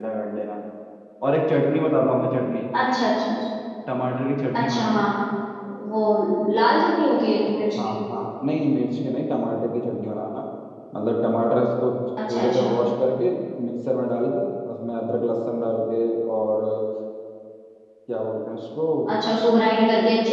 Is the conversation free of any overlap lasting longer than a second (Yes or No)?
Yes